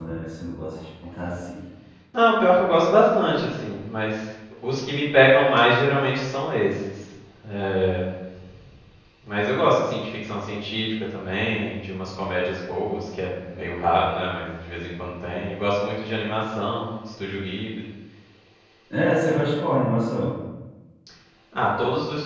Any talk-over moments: No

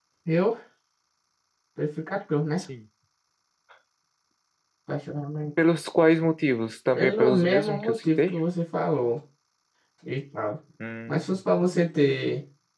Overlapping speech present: Yes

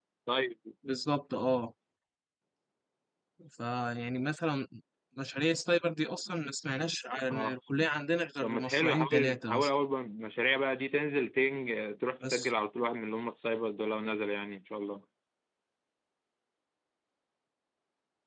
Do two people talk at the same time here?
Yes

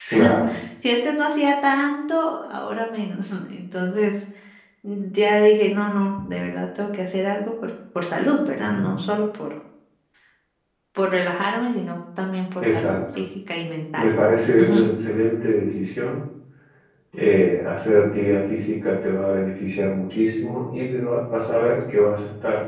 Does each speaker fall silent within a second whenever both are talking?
Yes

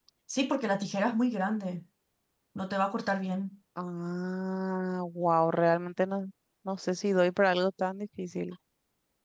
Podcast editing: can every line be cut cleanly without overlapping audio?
Yes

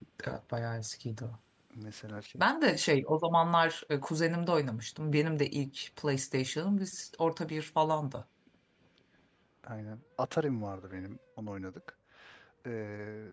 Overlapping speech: No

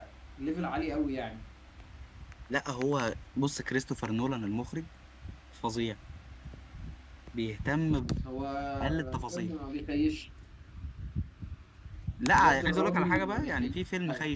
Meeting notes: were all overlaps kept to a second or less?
No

